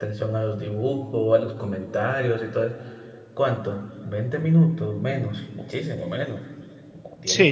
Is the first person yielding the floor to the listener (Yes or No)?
Yes